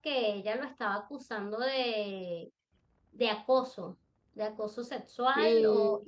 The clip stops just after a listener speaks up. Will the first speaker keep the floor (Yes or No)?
Yes